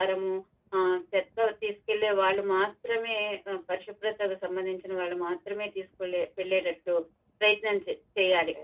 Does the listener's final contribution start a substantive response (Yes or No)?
No